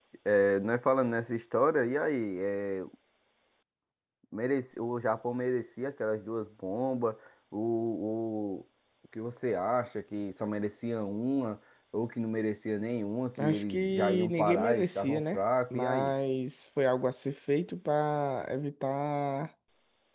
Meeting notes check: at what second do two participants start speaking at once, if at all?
13.4 s

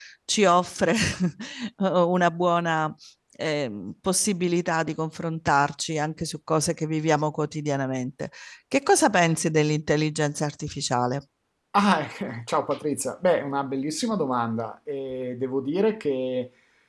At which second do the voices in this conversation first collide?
none

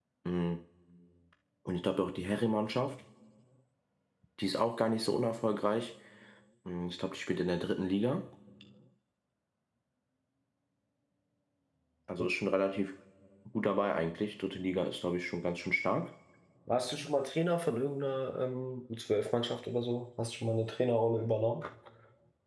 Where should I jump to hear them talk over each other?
none

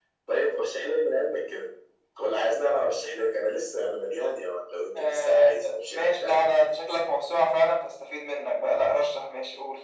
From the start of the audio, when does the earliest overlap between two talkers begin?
5.0 s

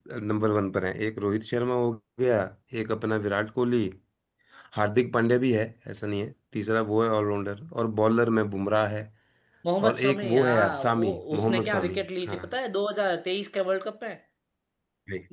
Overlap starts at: 9.8 s

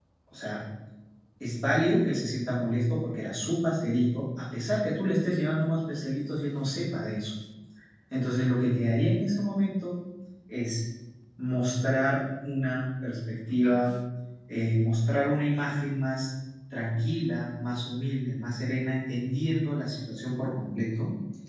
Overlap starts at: none

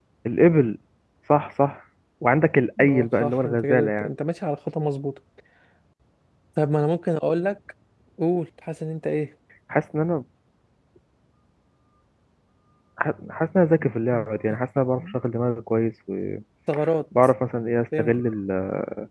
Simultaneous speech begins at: 2.9 s

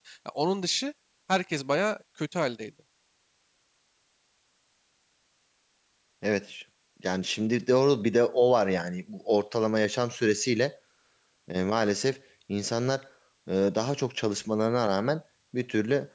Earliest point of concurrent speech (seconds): none

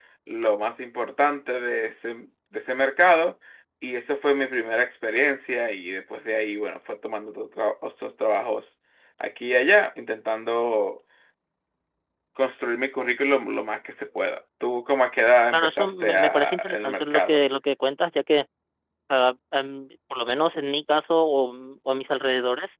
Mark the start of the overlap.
15.5 s

